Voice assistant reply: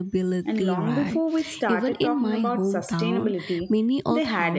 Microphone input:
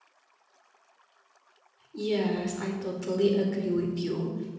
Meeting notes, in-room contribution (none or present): present